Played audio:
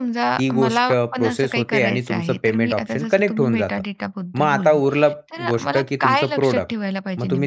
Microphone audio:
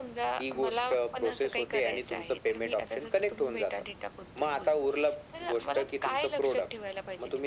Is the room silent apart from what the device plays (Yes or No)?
Yes